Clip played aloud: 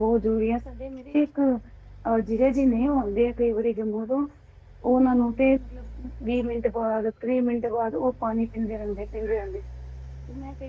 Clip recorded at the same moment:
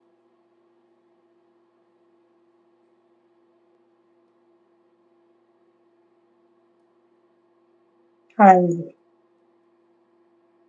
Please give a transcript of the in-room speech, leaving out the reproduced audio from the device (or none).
ਹਾਂਜੀ,